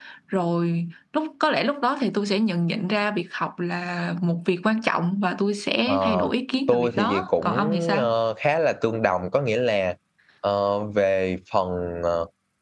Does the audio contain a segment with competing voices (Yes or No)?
Yes